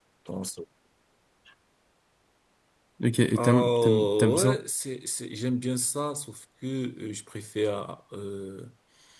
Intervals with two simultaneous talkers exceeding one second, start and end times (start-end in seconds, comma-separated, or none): 3.4-4.6